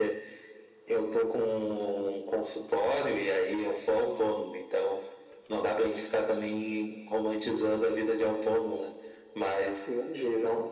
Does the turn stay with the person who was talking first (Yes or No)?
Yes